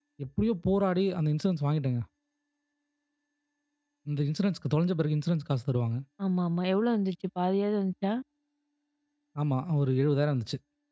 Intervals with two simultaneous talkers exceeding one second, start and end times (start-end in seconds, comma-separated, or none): none